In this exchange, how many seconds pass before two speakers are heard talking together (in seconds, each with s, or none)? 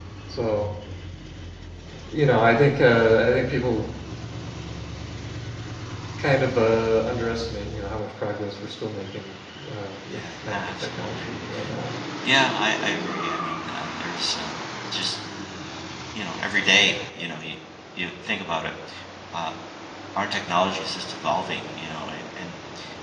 10.1 s